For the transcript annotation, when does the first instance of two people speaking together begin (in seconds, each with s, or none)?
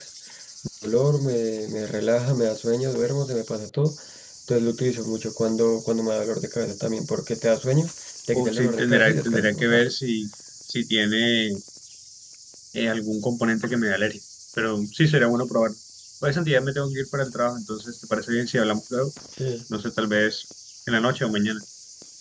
8.3 s